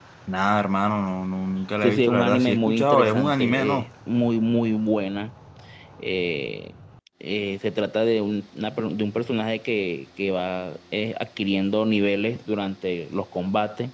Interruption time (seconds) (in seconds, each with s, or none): 1.8 s